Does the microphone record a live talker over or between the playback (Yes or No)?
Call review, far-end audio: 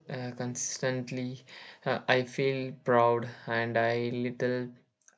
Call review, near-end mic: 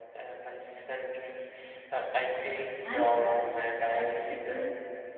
Yes